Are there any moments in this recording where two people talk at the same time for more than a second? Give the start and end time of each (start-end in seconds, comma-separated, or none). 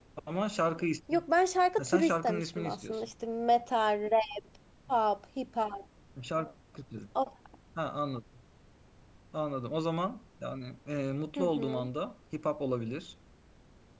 1.8-3.1